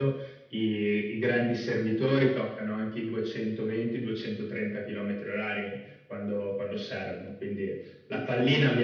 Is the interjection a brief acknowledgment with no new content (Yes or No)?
Yes